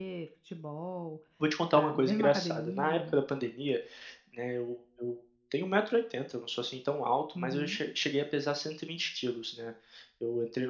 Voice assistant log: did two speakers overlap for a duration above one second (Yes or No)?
Yes